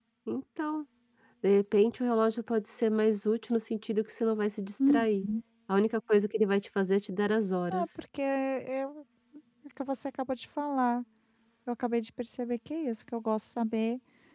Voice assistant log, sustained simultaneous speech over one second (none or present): none